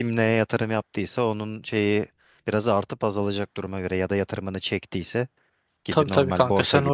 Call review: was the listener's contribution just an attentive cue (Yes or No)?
No